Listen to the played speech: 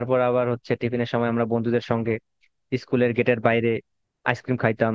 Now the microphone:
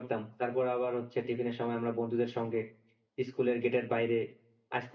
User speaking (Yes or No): No